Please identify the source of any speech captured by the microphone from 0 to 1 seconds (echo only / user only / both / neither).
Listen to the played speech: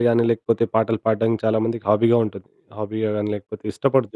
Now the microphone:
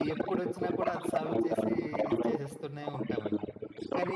both